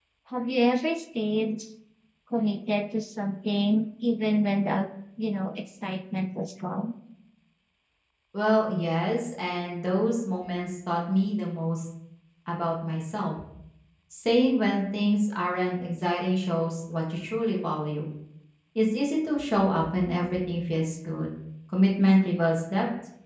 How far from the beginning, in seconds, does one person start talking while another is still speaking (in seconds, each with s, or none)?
none